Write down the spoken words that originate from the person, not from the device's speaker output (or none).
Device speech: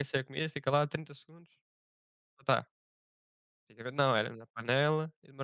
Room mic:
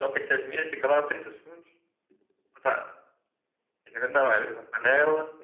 none